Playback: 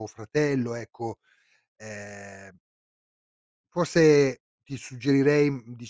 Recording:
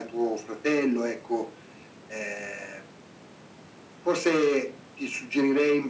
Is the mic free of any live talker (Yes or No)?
Yes